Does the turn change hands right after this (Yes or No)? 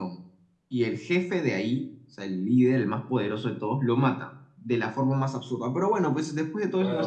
Yes